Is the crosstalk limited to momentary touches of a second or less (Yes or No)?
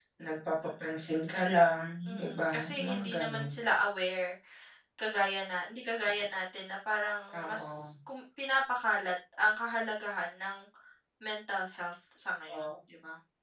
No